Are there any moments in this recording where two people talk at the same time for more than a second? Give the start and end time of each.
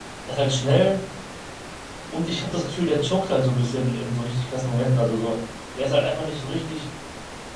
none

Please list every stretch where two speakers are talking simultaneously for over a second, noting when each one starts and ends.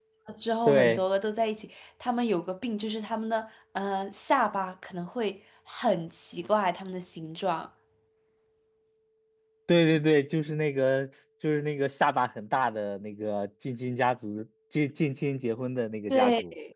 none

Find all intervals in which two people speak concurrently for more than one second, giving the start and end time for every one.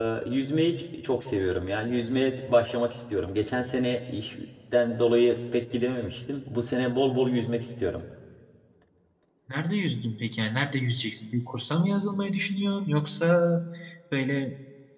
none

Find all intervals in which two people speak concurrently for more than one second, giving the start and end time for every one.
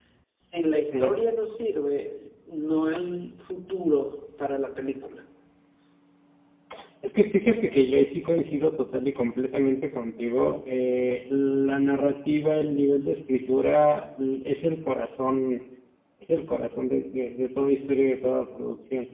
none

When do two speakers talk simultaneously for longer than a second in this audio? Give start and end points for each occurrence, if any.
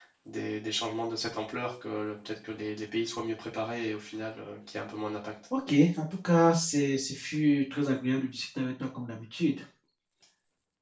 none

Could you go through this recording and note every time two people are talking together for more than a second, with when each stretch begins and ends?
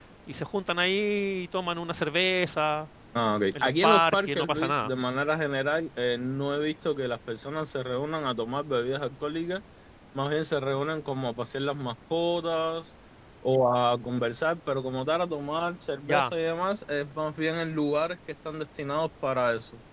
3.6-4.9

